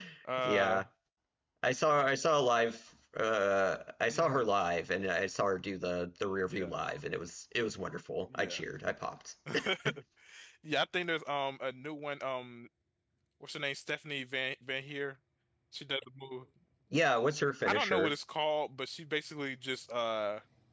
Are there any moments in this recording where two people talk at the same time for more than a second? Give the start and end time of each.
none

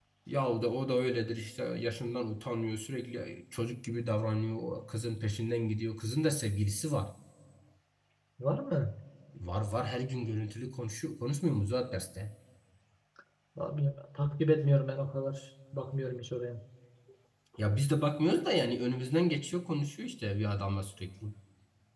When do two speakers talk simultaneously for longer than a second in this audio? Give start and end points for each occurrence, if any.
none

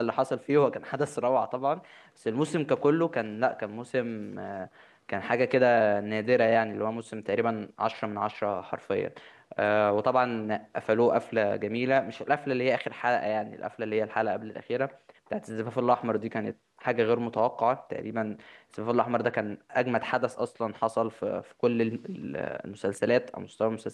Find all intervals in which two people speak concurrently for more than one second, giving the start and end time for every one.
none

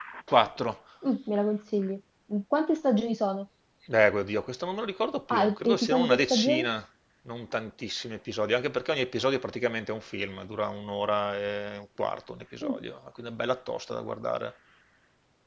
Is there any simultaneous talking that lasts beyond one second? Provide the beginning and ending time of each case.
5.4-6.7

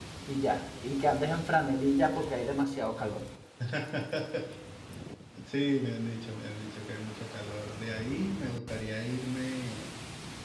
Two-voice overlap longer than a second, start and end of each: none

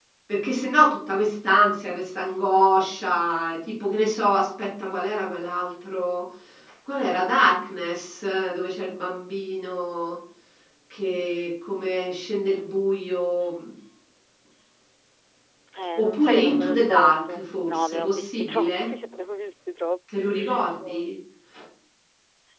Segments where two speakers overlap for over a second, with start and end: 16.0-18.9

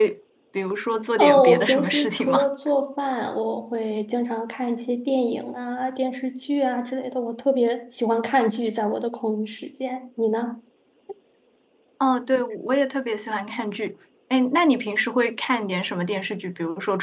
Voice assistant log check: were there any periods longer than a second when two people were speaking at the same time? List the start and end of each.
1.2-2.5

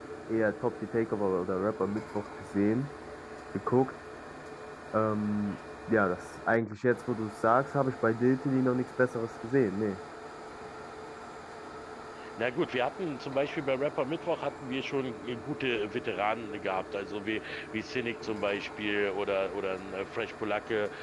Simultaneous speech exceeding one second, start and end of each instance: none

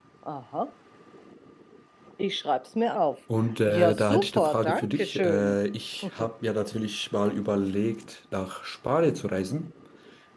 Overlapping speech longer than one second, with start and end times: 3.7-5.6

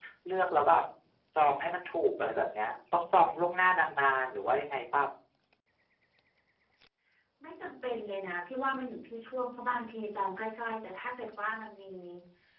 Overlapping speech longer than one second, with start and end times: none

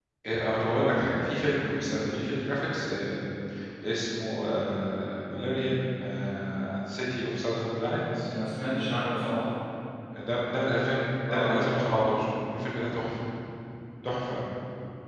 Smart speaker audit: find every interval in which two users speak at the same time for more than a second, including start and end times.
none

